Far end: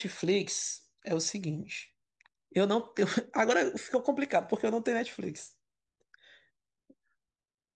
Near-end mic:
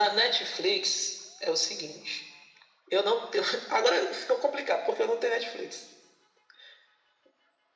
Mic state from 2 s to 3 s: echo only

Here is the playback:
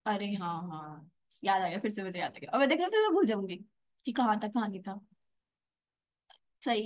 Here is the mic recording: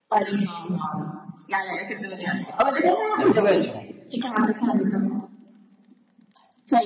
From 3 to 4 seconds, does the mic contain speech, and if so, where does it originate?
both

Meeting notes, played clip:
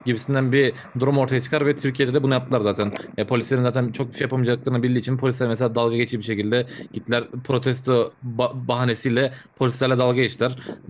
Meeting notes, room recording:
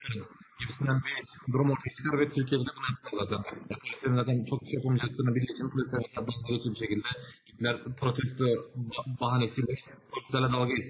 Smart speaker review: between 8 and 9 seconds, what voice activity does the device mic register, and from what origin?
echo only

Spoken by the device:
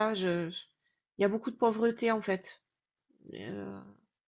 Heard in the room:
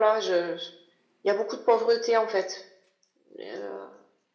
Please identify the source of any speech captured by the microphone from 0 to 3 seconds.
echo only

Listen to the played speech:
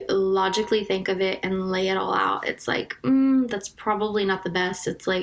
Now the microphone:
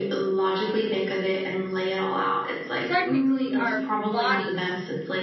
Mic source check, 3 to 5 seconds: both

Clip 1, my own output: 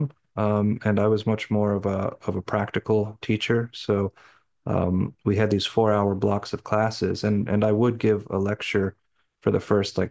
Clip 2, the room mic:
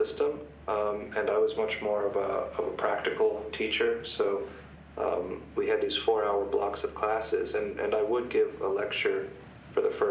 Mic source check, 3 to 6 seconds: echo only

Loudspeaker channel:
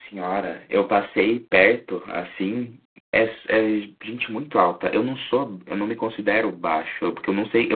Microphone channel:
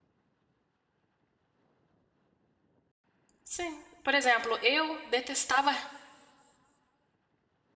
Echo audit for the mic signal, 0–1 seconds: neither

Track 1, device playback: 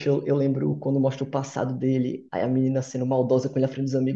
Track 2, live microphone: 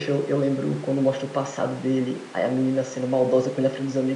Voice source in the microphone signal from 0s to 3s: echo only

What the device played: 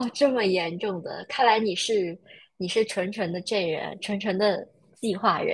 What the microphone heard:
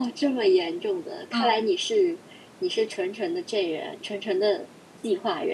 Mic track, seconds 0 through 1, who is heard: echo only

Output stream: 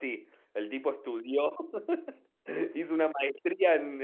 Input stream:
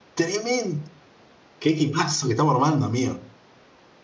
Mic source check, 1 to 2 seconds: user only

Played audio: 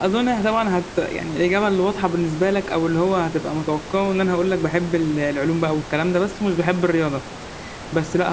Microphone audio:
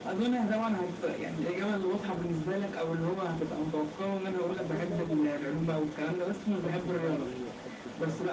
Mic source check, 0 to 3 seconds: both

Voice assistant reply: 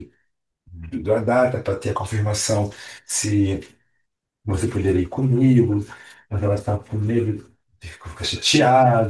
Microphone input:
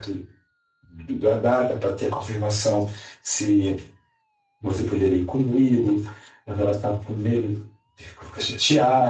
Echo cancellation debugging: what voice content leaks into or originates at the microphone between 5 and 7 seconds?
echo only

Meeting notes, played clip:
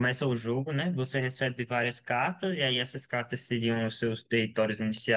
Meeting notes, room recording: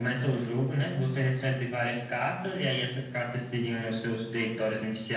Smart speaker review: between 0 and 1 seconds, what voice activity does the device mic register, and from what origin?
echo only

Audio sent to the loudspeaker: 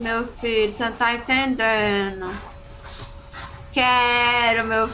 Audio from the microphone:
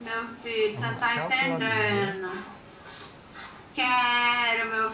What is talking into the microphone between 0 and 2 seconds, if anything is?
both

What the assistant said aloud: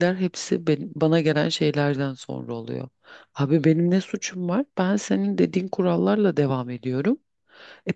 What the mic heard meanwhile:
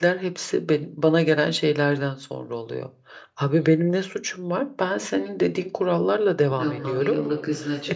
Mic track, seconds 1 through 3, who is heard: echo only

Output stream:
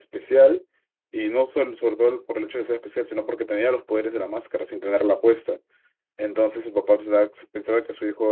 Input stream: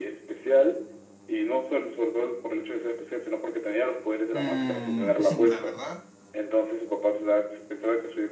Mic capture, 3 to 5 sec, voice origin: both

